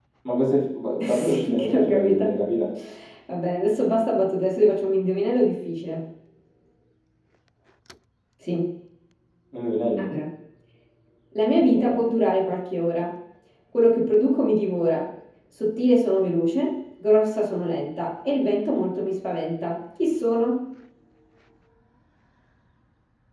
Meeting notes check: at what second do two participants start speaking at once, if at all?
1.0 s

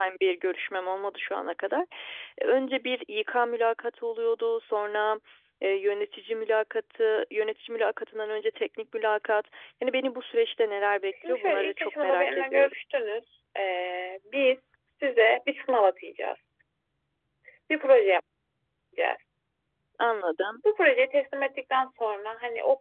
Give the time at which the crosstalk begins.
11.1 s

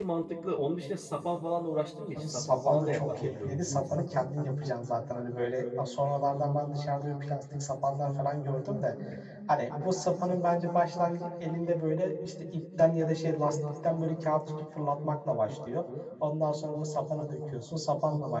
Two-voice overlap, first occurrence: 2.2 s

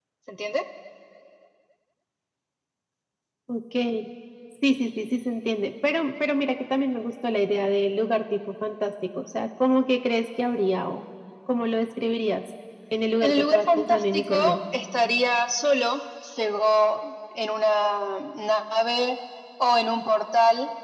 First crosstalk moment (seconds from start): 13.2 s

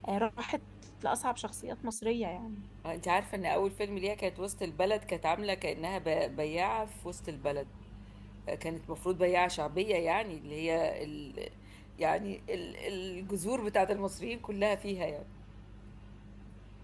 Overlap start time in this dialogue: none

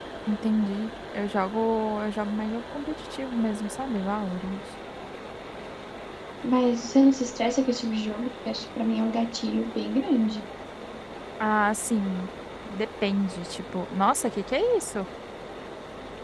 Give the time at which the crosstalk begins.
none

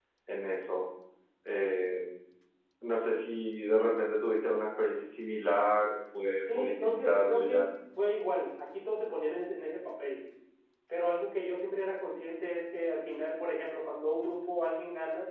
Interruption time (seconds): 6.4 s

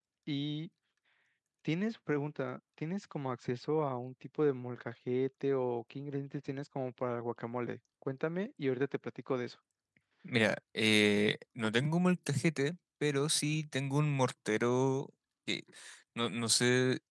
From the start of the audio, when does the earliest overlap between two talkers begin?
none

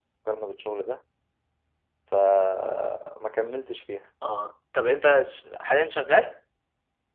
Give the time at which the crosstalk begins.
none

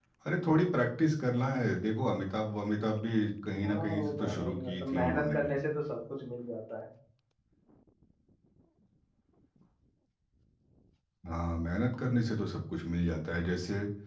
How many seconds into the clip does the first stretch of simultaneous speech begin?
3.6 s

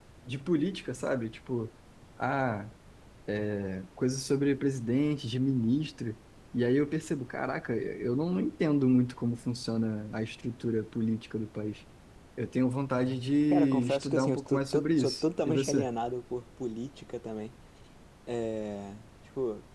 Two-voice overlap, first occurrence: 13.5 s

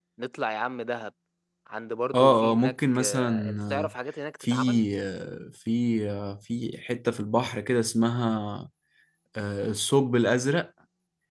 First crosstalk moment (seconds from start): 2.2 s

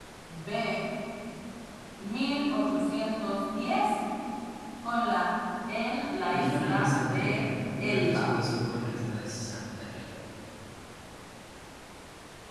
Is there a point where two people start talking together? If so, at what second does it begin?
6.3 s

